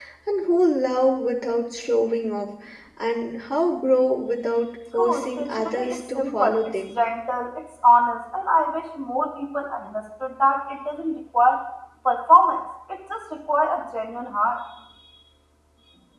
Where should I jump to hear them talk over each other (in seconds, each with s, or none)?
5.0 s